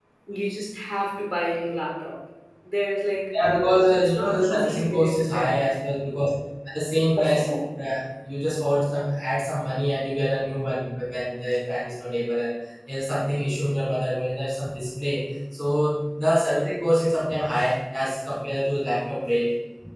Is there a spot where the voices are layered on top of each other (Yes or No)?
Yes